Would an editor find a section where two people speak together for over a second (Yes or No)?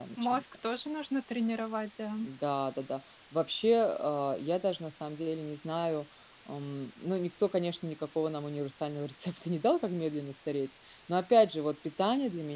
No